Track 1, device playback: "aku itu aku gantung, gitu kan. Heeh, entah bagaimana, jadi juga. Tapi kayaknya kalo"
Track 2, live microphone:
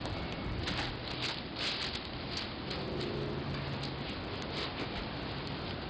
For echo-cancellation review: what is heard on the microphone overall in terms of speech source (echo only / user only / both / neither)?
neither